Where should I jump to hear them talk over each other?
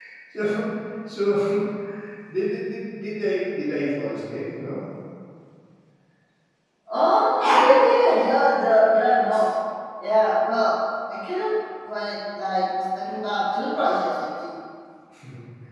none

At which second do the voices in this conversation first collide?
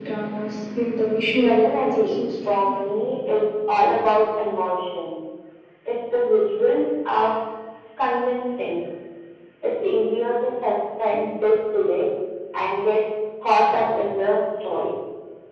1.3 s

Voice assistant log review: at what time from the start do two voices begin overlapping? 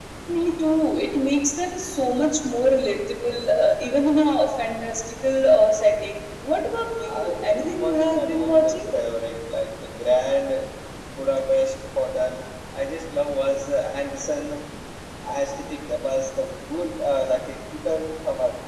7.0 s

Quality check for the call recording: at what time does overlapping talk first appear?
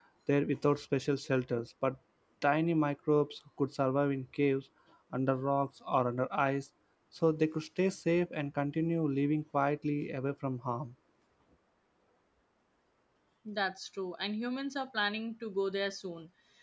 none

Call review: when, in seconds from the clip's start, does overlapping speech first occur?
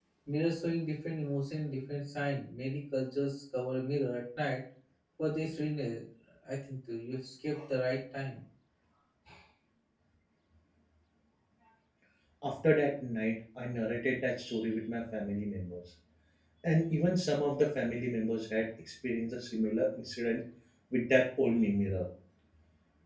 none

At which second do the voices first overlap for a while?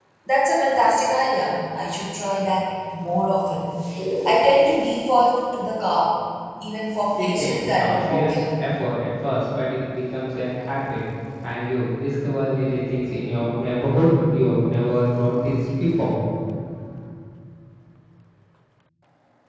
7.1 s

